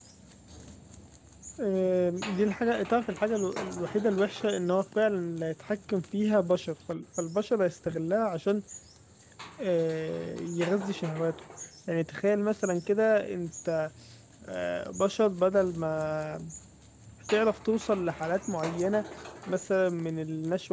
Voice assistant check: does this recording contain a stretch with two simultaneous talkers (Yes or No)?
No